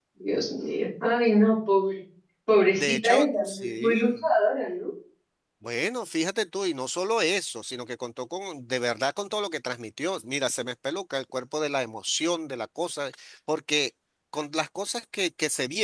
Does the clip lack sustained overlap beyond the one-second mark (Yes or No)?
No